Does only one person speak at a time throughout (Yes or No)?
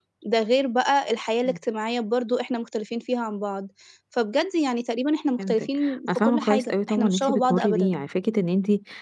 No